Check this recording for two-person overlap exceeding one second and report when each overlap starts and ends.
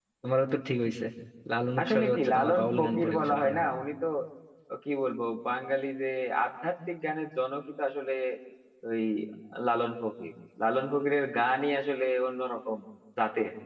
1.8-3.7

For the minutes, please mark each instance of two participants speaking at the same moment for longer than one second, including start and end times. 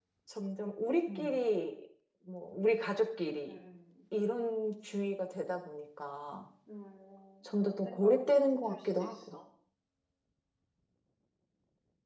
7.6-9.3

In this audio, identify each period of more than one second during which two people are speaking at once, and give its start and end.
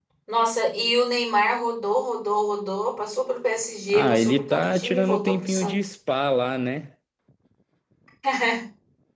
3.9-5.9

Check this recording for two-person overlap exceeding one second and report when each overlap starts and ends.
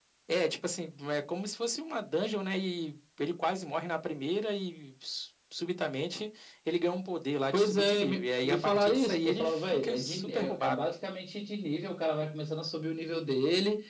7.5-10.9

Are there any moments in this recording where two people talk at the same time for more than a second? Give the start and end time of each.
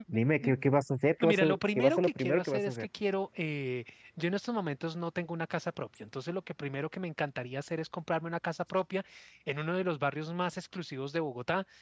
1.3-2.9

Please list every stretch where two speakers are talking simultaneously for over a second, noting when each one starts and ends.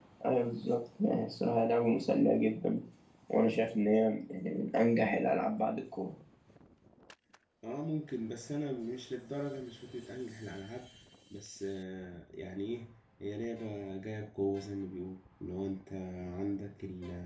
none

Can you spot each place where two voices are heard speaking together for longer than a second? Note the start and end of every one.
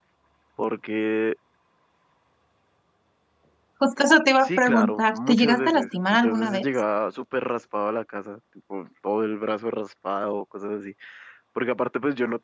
4.4-6.7

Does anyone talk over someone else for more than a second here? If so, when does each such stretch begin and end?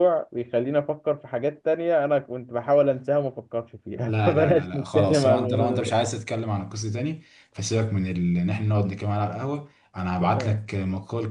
4.0-5.9

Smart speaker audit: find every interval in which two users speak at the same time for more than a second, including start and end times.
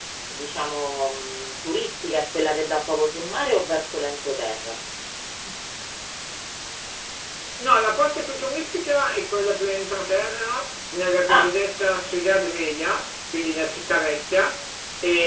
none

